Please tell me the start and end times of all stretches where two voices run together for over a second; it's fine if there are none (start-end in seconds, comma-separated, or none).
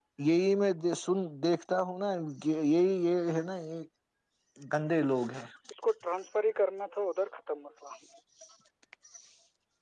none